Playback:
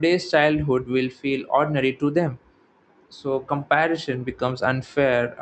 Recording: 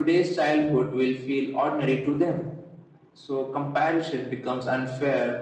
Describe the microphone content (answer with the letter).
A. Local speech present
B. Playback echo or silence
B